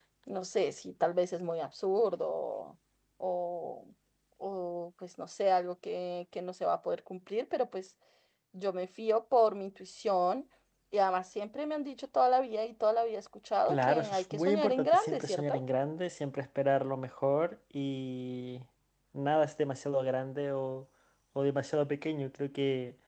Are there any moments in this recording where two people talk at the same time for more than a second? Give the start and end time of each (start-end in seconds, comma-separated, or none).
13.7-15.6